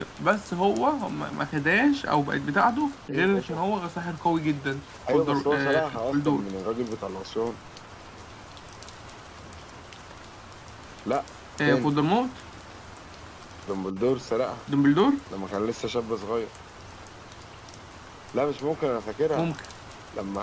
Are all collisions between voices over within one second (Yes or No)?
No